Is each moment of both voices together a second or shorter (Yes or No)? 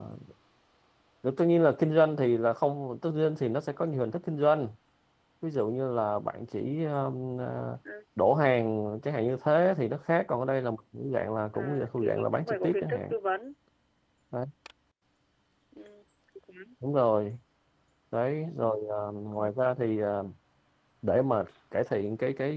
No